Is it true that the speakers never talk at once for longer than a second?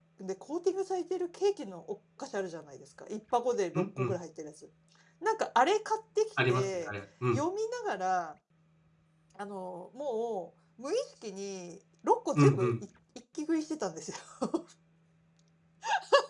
Yes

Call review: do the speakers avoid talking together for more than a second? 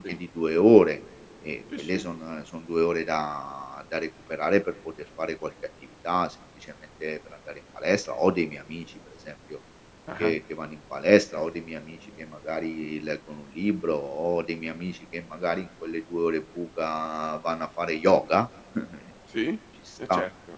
Yes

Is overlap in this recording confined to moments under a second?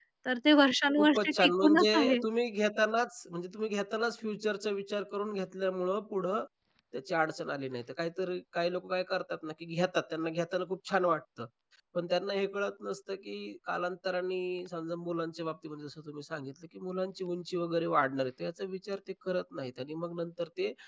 No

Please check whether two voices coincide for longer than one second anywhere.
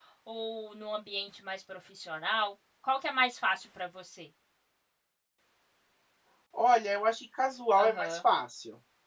No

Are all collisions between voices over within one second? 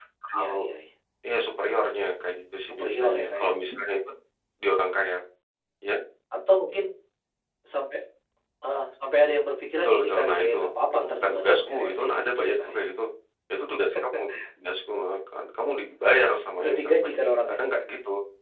No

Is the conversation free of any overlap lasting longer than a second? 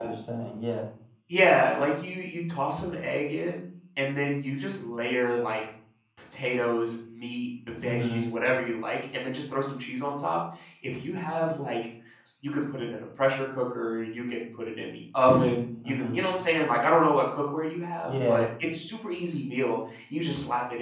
Yes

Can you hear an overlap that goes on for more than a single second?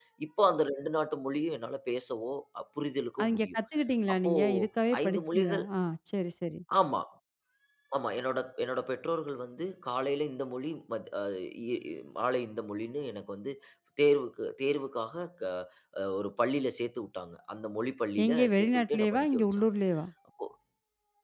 Yes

